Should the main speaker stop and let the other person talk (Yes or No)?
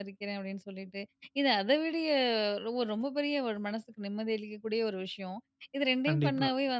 No